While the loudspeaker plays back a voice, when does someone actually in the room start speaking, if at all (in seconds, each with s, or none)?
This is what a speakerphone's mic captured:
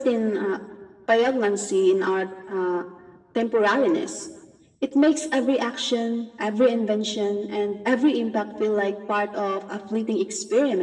none